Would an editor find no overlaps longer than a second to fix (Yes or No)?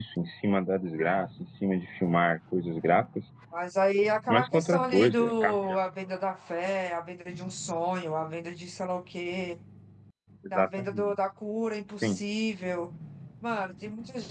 No